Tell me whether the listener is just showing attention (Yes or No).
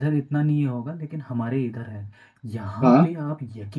Yes